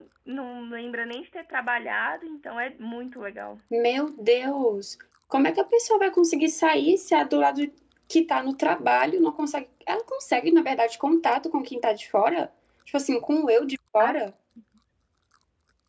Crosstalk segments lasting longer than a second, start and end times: none

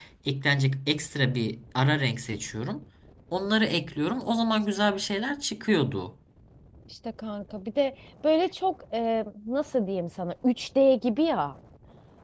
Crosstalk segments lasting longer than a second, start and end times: none

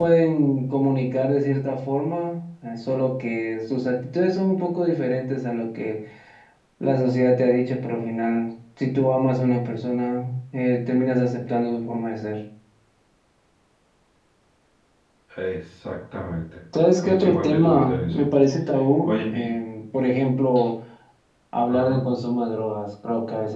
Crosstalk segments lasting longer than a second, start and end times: 17.0-18.3

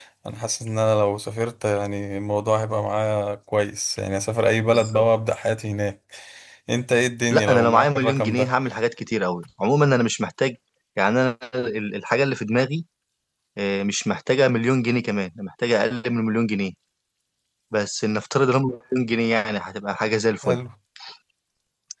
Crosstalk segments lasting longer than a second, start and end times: 7.3-8.5

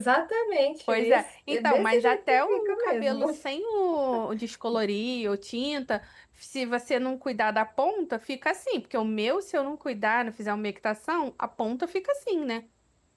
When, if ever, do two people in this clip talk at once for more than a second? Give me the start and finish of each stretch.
0.9-3.3

